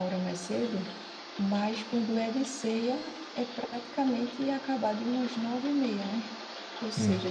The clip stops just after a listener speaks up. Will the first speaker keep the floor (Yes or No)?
Yes